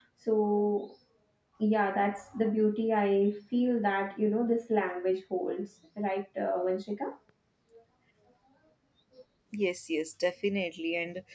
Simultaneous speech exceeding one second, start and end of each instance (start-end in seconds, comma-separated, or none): none